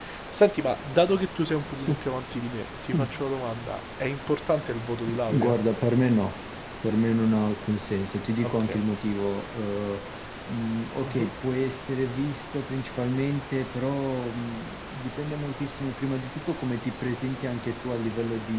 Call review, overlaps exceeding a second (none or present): none